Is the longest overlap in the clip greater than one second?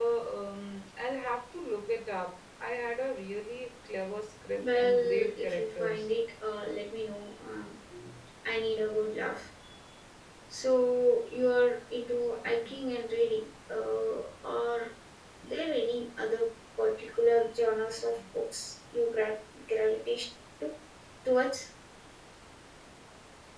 Yes, from 4.6 s

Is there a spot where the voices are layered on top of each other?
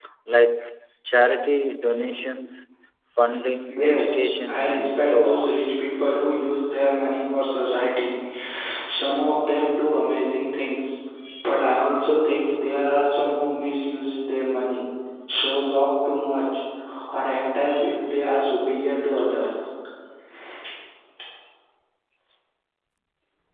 Yes, from 3.8 s

